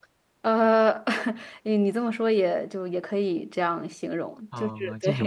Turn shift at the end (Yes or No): Yes